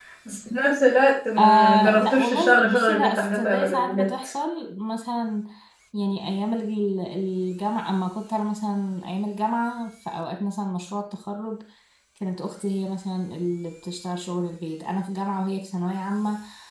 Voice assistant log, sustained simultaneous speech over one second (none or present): present